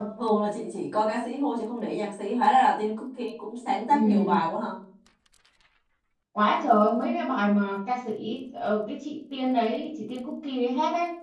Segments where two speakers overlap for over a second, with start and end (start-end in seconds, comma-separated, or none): none